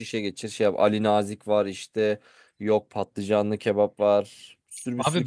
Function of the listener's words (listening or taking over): taking over